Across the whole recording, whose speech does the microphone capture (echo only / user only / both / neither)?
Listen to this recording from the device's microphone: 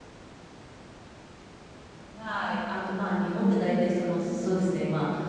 user only